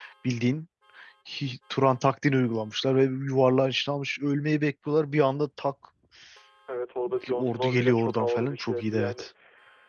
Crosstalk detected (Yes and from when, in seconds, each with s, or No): Yes, from 7.3 s